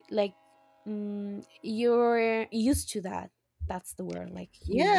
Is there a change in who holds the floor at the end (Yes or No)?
Yes